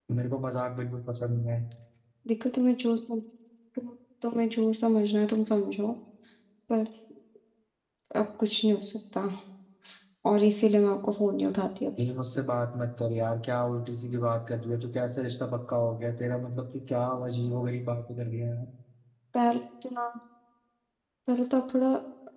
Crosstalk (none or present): none